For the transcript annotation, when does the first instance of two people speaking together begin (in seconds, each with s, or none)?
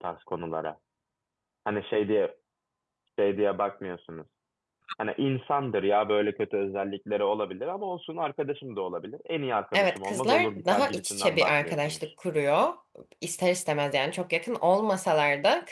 9.7 s